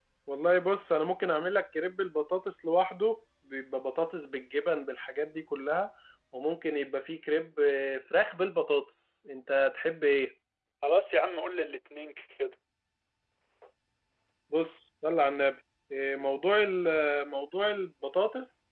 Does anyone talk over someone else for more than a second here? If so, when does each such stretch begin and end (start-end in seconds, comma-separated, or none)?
none